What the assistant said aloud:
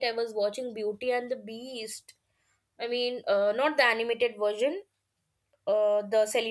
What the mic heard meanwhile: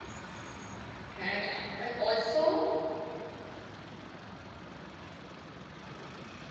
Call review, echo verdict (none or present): none